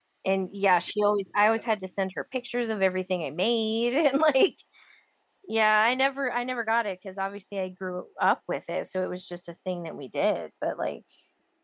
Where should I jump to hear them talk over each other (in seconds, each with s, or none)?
none